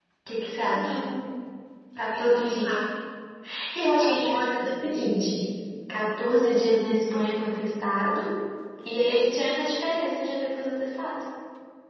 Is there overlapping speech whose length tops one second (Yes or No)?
Yes